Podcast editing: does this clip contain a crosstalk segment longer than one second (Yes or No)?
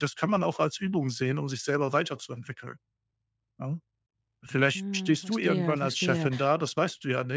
Yes